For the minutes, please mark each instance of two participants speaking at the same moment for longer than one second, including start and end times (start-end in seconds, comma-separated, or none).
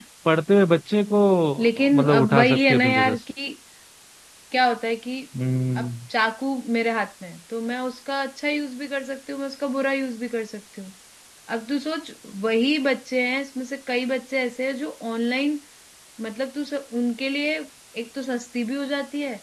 1.6-3.2